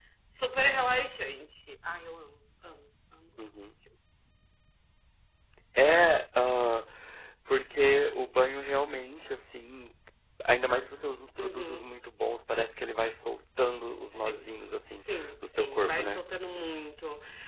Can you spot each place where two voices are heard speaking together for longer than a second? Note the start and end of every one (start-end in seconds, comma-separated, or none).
14.9-16.2